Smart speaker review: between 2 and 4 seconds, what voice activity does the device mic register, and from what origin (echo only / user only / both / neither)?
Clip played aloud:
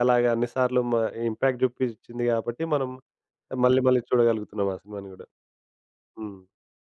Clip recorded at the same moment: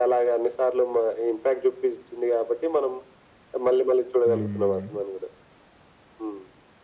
echo only